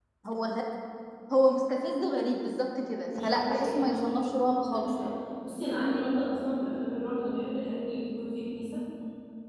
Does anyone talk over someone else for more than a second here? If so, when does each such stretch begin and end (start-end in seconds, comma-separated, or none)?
3.2-4.9